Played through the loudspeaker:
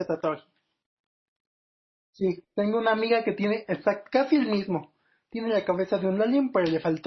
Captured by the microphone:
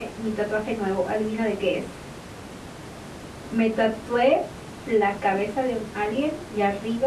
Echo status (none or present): none